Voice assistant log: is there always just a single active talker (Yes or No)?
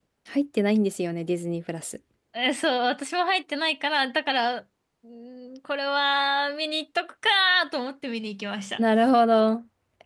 Yes